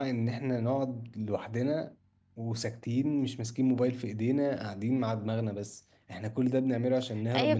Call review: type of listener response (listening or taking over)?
taking over